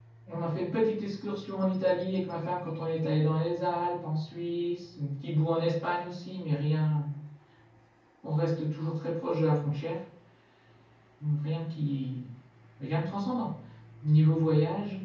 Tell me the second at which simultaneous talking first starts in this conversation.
none

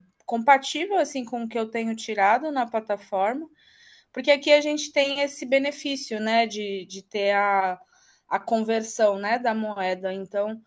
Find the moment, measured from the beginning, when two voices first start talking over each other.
none

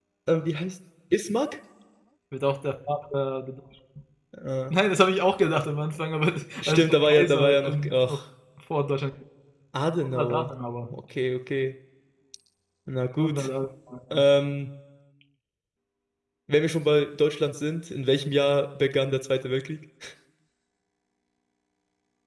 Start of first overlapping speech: 7 s

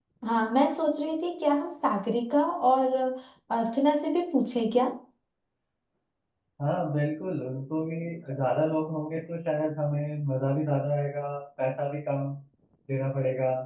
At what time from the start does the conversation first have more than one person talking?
none

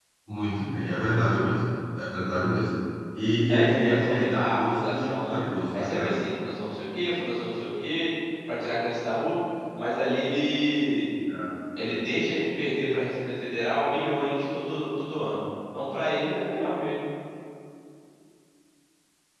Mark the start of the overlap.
3 s

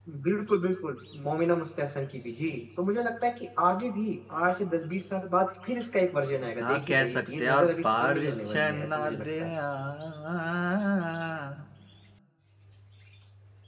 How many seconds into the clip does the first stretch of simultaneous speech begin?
7 s

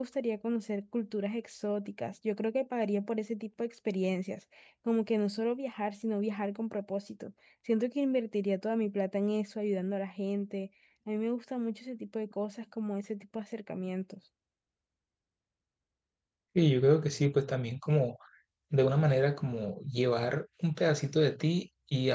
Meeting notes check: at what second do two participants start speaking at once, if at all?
none

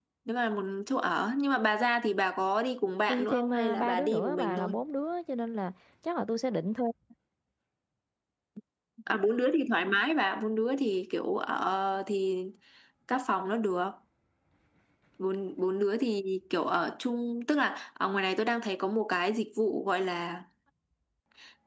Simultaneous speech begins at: 3 s

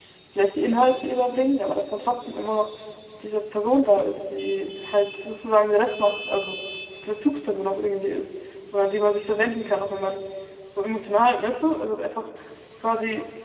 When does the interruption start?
none

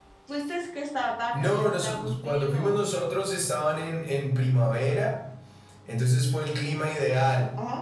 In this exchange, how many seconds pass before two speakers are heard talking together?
1 s

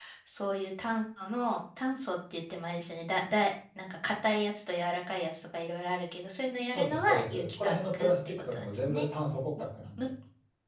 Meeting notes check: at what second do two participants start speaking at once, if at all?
7 s

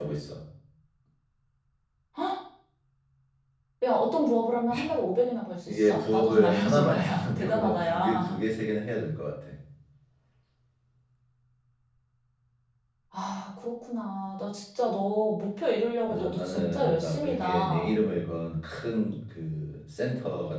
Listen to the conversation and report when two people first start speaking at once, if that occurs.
6 s

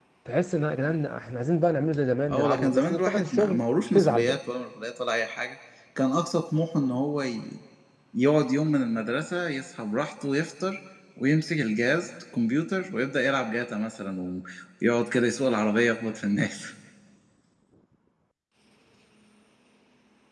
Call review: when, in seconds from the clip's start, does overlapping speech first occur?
2 s

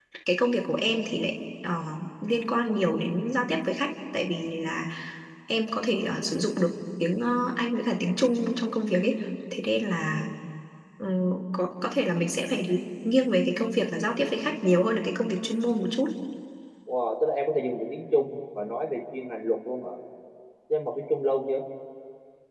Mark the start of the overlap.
none

